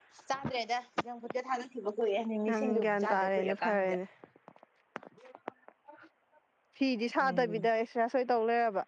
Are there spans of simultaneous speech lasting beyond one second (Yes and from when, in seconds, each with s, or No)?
Yes, from 2.5 s